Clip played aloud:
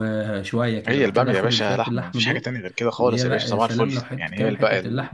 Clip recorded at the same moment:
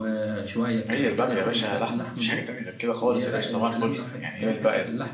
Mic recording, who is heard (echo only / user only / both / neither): echo only